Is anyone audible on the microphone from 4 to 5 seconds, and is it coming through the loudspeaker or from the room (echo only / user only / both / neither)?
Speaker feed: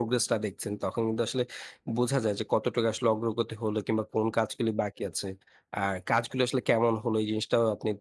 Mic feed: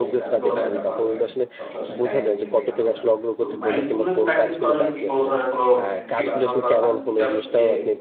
both